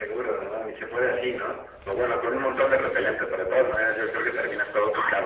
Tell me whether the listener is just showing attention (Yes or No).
No